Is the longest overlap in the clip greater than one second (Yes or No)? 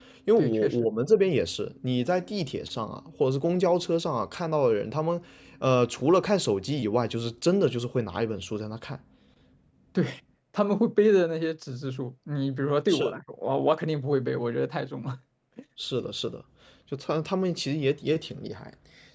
No